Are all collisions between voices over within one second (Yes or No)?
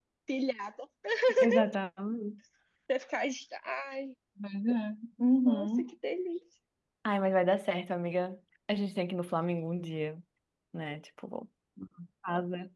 Yes